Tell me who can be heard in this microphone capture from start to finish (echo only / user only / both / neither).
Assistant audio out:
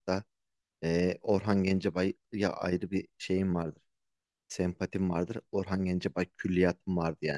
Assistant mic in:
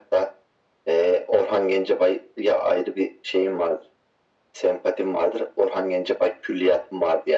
echo only